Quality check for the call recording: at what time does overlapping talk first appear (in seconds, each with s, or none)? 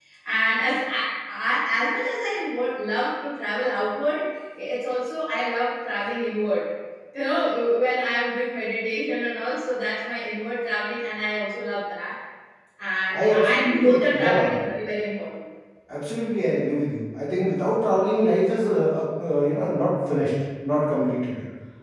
13.1 s